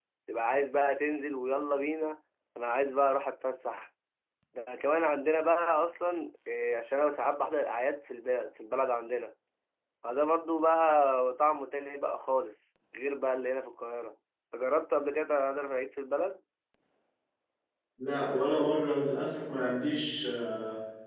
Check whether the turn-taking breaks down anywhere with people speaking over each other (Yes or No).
No